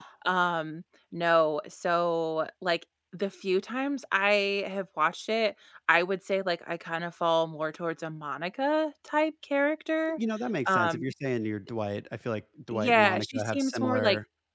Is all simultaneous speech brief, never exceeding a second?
No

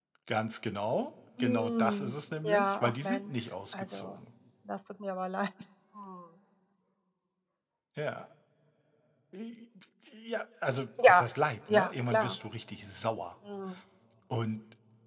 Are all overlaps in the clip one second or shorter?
No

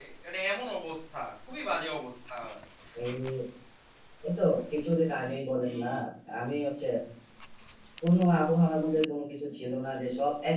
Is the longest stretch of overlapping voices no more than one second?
Yes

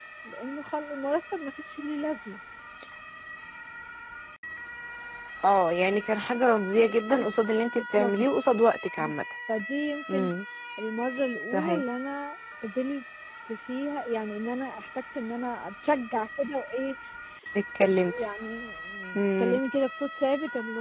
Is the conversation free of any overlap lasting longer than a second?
Yes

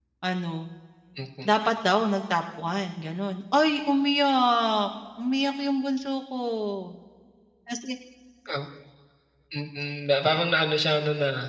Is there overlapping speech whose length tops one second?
No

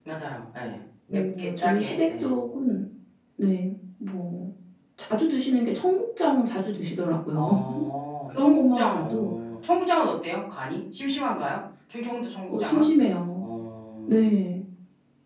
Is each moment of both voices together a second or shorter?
No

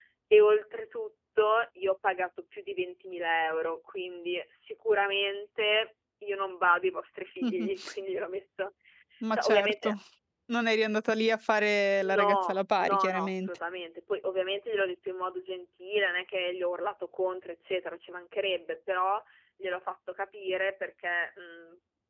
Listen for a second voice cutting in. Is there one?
Yes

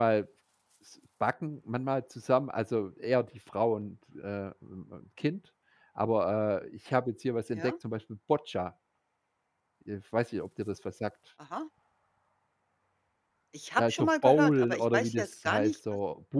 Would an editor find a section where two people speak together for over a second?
Yes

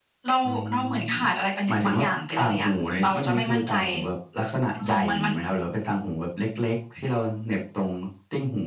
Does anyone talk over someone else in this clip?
Yes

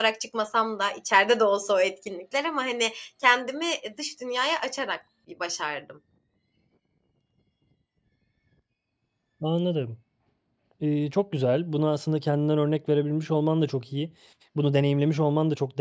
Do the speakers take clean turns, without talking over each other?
Yes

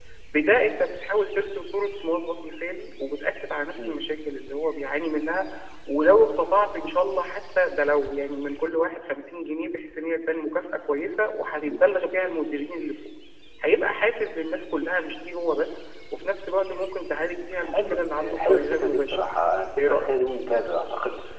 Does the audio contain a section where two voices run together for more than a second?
Yes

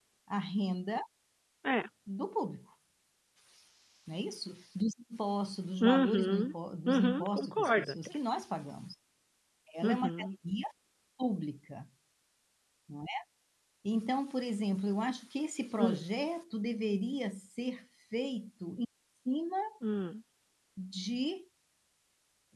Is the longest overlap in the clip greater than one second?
Yes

